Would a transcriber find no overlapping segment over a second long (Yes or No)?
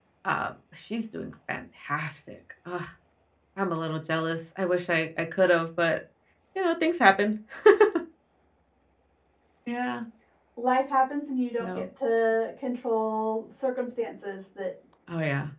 Yes